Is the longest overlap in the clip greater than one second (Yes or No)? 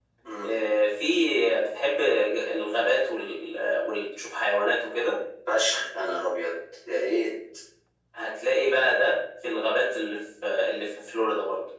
No